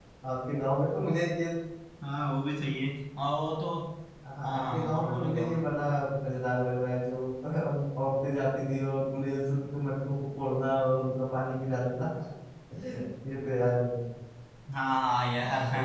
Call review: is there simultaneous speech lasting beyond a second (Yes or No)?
Yes